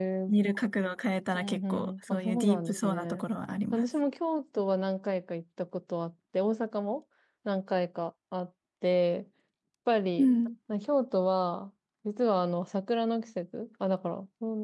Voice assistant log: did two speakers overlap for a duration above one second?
Yes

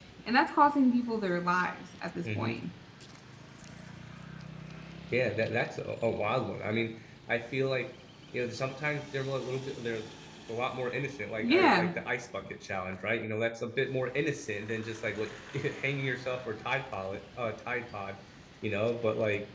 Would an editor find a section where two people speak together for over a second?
No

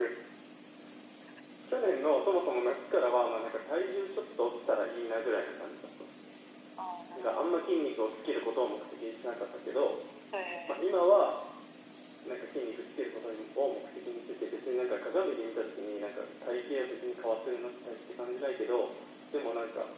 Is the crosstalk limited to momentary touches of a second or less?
Yes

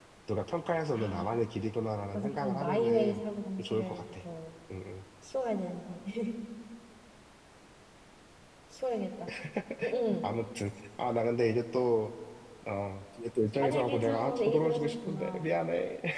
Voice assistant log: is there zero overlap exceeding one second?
No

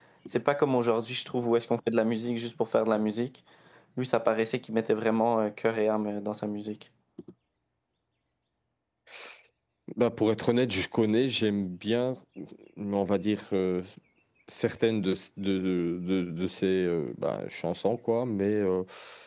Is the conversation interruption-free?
Yes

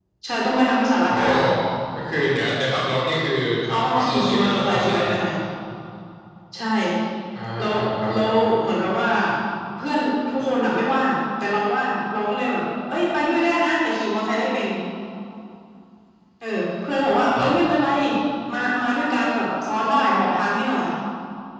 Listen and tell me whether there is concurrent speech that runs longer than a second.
Yes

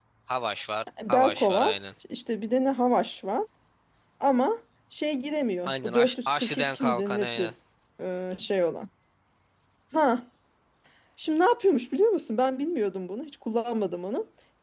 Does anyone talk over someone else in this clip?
Yes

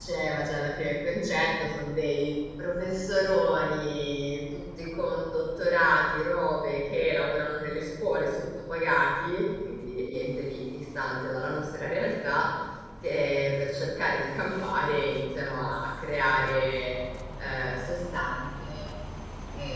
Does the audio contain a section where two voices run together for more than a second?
No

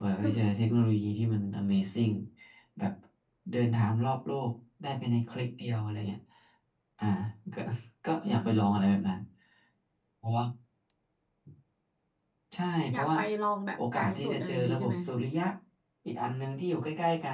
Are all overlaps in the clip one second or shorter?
No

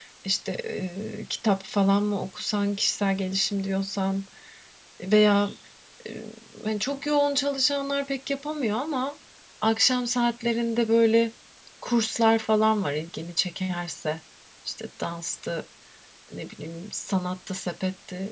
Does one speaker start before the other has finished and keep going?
No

